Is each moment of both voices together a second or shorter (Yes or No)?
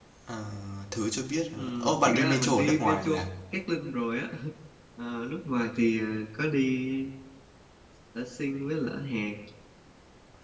No